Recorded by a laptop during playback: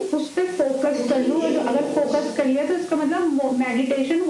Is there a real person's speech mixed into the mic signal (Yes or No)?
Yes